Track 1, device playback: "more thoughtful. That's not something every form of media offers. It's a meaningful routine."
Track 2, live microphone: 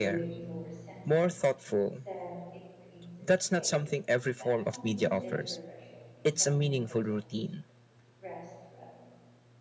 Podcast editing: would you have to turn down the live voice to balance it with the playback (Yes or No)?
No